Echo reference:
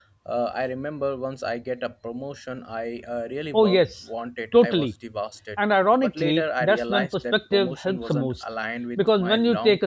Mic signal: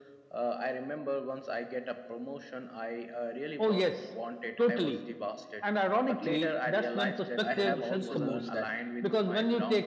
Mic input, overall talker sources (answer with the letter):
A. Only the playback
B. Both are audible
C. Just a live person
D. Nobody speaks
B